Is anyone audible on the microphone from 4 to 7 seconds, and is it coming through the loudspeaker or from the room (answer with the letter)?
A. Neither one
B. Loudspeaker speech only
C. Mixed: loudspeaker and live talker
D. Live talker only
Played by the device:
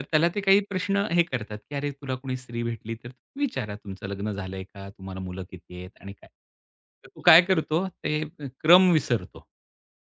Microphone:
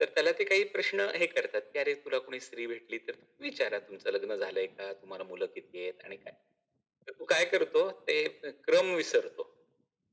B